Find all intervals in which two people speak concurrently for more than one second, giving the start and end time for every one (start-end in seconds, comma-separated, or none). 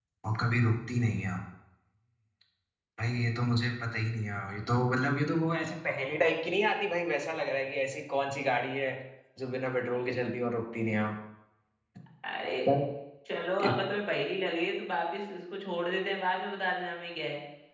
none